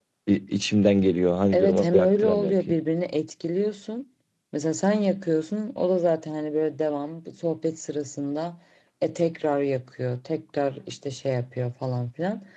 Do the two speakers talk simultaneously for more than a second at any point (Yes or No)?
Yes